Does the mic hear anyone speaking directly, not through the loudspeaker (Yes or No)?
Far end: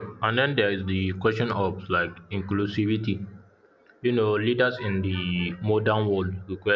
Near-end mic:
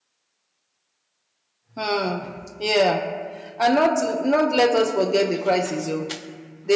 Yes